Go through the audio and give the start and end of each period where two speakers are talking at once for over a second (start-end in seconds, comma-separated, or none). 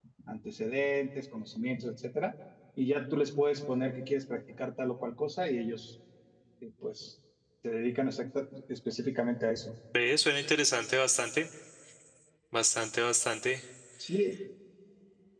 none